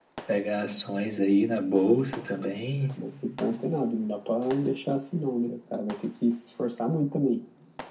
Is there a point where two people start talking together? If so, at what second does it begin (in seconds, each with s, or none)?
none